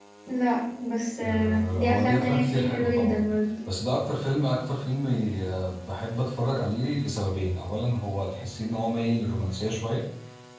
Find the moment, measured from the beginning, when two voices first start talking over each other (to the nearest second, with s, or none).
1 s